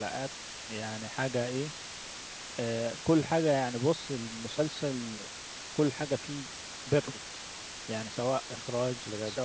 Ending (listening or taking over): listening